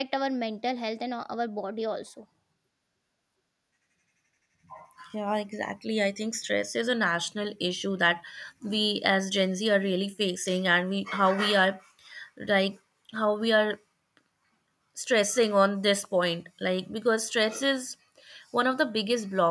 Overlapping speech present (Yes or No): No